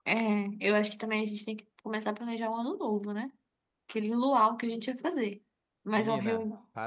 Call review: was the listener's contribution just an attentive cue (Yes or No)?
No